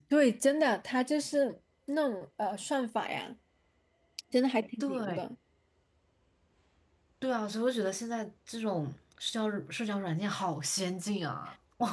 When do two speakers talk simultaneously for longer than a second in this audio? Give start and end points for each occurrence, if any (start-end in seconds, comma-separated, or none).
none